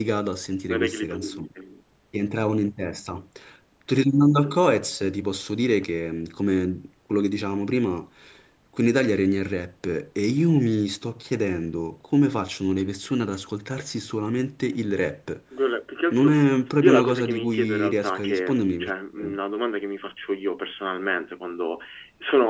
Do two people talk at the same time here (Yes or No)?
Yes